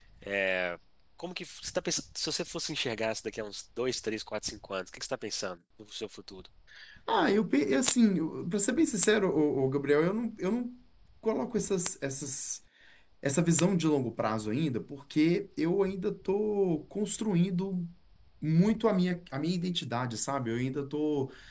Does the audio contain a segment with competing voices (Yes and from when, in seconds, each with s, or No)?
No